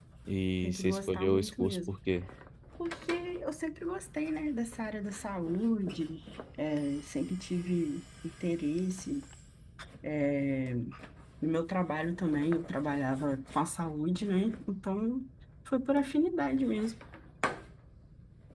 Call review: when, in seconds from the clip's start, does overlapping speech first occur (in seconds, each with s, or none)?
0.6 s